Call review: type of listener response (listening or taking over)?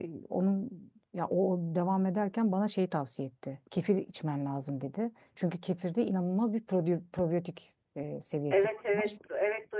taking over